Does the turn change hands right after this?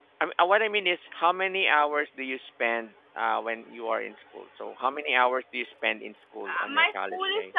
Yes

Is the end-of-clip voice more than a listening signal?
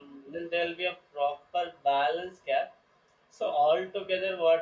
No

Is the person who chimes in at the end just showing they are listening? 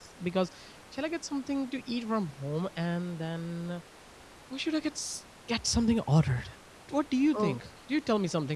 Yes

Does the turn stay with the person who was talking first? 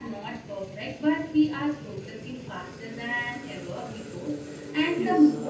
Yes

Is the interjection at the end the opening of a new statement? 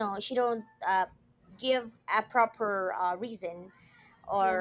No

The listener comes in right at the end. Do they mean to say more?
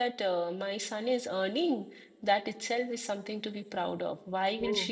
No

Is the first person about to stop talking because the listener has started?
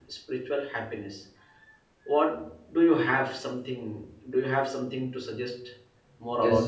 Yes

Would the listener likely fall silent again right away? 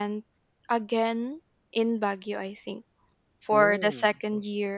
Yes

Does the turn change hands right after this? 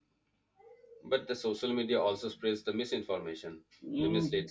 Yes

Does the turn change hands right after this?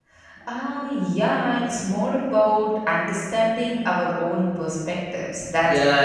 Yes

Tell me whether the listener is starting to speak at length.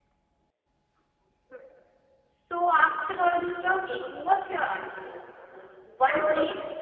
No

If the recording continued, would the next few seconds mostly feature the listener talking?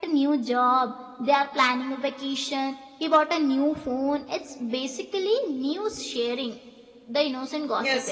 Yes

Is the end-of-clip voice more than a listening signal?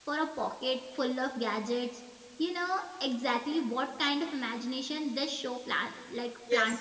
Yes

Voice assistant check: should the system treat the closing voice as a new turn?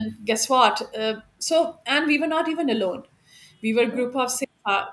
No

